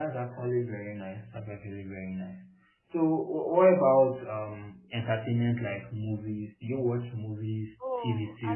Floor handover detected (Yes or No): Yes